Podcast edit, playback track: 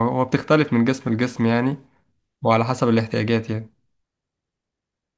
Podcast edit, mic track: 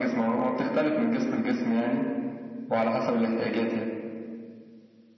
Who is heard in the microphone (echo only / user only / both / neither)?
echo only